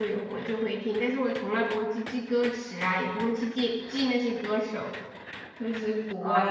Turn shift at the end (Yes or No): Yes